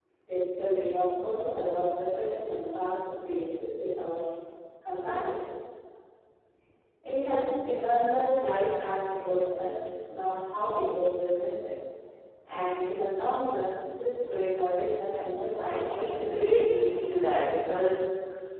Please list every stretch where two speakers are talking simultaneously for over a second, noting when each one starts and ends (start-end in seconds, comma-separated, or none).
15.6-17.1